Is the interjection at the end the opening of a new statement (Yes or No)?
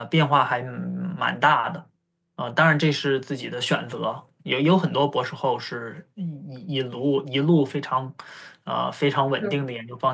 No